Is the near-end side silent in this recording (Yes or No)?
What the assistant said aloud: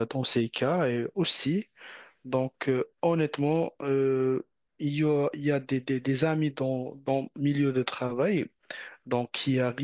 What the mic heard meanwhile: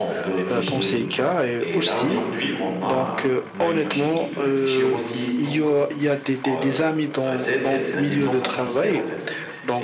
No